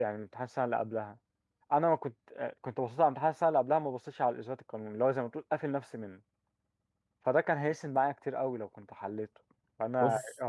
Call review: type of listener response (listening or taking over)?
listening